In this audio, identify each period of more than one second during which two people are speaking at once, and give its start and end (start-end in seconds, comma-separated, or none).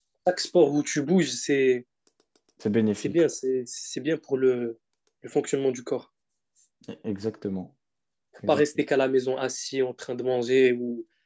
none